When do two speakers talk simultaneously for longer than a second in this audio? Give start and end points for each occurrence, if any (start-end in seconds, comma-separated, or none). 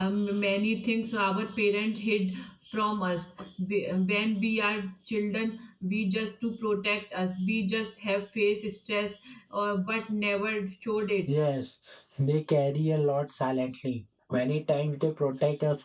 none